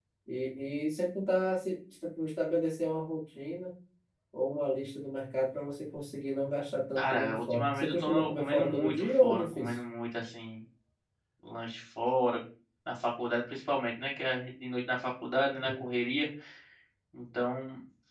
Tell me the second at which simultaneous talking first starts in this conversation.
7.0 s

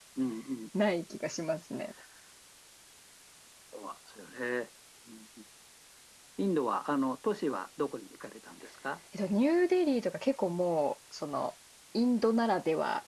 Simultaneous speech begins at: none

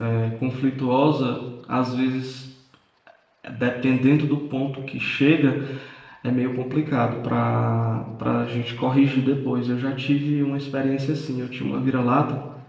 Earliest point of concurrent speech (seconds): none

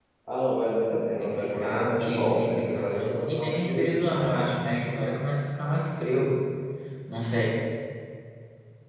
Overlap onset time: 1.2 s

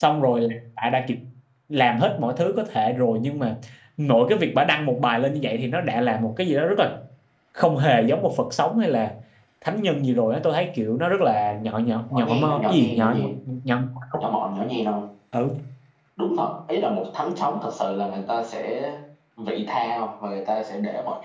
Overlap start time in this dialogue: 12.1 s

